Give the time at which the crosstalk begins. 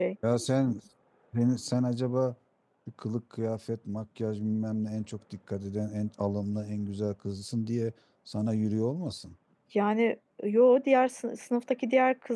none

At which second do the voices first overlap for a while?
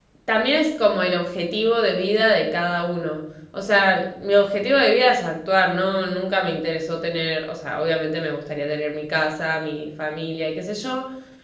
none

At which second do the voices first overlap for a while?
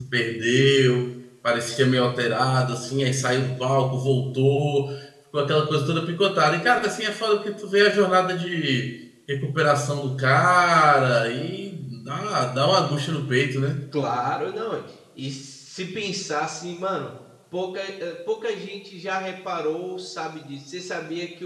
none

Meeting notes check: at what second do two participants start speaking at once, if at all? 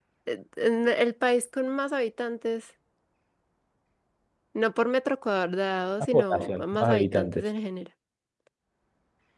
6.1 s

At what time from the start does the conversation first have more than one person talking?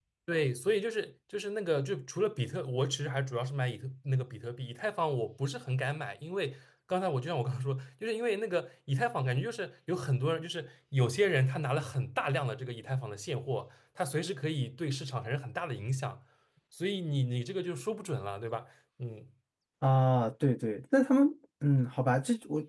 none

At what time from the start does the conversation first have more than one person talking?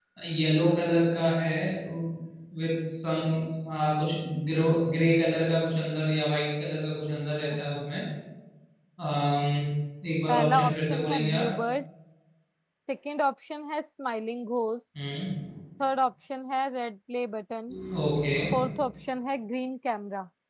10.3 s

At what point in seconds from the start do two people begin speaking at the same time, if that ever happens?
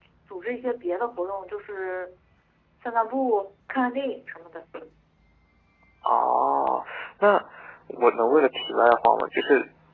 none

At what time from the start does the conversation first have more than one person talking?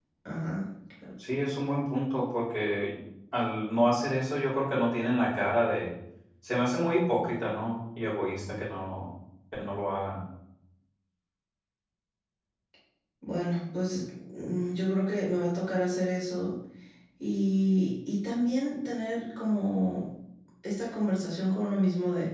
none

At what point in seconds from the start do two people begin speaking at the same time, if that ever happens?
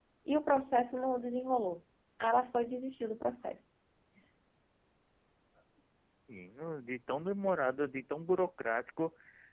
none

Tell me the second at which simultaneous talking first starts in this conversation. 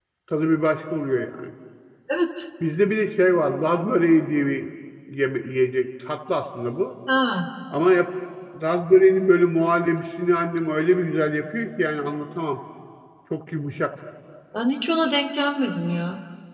none

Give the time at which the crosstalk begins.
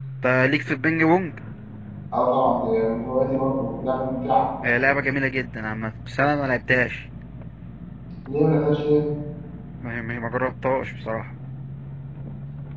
none

